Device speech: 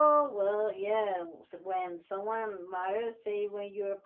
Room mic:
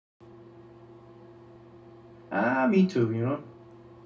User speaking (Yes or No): Yes